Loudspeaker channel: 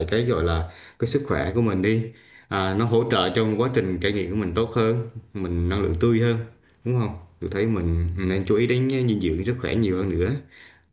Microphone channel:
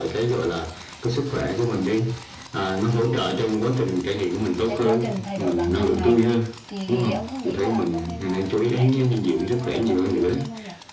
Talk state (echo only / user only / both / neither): both